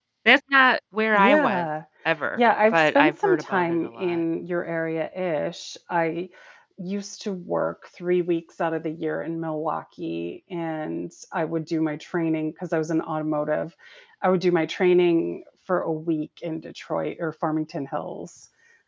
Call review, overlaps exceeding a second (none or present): present